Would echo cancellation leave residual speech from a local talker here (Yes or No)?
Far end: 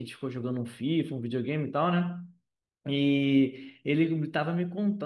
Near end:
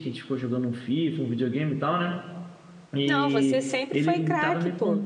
Yes